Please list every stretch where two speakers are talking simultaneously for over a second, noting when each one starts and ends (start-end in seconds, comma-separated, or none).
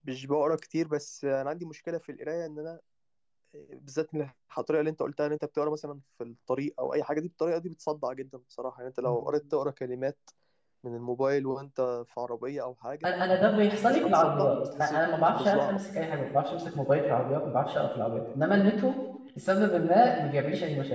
13.8-15.8